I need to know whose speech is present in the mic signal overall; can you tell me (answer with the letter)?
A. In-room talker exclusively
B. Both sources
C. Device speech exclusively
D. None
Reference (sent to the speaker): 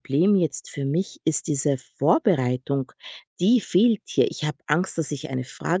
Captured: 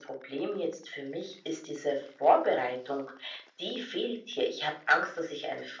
C